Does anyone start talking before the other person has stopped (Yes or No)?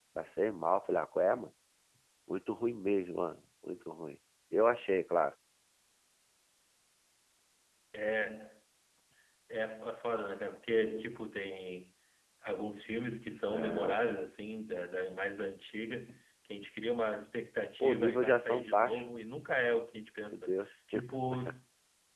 Yes